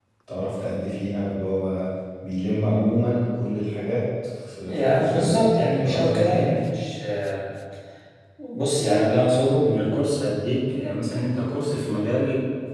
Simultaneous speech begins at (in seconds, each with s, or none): 4.7 s